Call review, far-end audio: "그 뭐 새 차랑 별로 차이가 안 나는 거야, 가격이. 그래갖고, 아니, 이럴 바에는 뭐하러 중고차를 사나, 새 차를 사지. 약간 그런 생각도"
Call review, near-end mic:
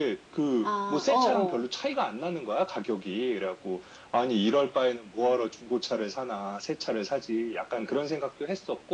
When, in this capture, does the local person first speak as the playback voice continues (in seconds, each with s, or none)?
0.6 s